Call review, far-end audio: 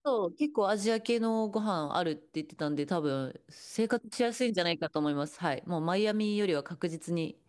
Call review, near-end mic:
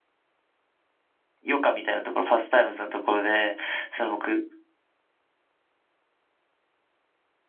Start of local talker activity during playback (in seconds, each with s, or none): 1.4 s